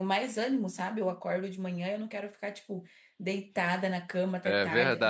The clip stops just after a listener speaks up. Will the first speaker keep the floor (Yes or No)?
Yes